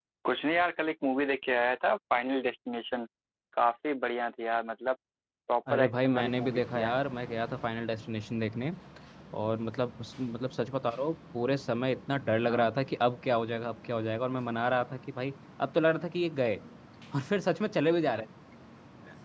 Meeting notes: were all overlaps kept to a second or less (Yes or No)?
No